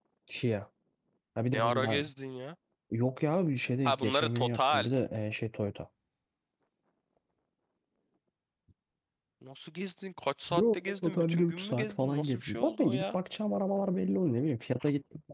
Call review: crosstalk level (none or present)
present